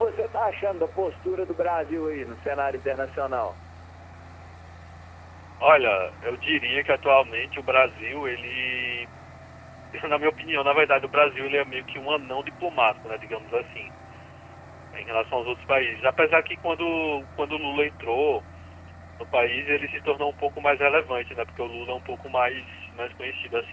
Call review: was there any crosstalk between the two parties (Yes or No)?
No